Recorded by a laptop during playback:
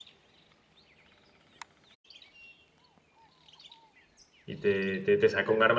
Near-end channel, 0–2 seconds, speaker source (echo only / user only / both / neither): neither